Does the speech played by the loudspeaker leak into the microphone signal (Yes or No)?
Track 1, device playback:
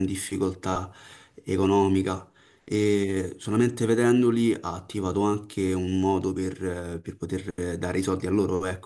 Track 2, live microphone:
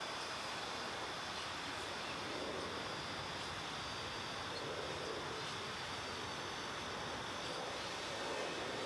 No